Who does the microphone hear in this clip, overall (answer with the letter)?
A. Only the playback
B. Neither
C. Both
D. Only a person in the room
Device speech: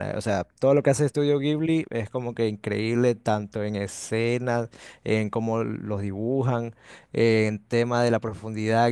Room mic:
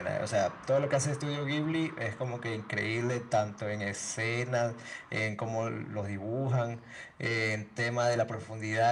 A